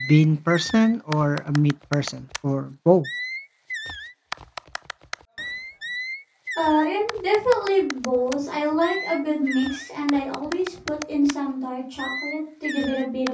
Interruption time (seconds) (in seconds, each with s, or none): none